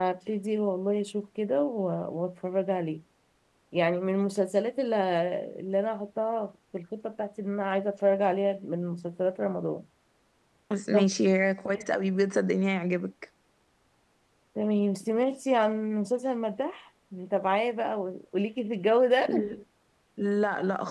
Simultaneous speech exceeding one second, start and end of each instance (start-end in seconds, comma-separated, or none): none